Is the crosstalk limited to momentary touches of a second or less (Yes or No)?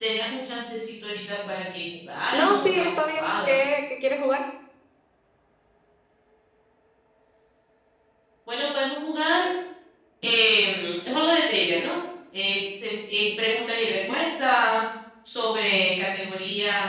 No